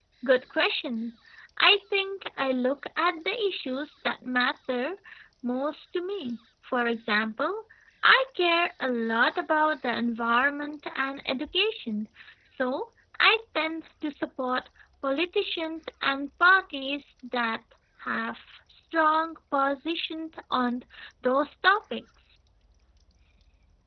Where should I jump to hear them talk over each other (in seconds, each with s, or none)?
none